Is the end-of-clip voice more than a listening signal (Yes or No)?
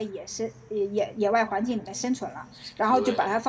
No